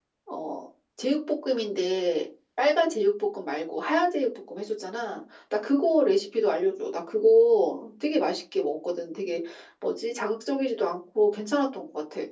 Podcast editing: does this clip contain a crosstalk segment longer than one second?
No

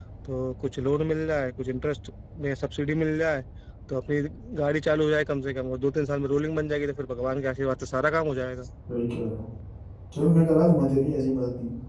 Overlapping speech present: No

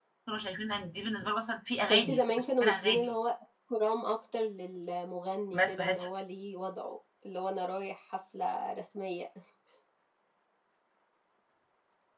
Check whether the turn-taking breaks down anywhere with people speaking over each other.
Yes, from 1.8 s

